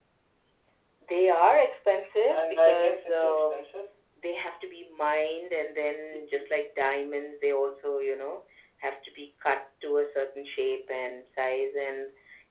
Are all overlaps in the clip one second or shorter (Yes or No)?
No